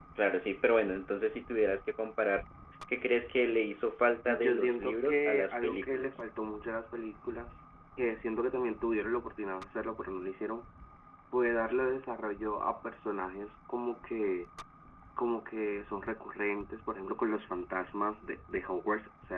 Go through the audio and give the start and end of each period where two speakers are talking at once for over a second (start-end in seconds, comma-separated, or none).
4.2-6.2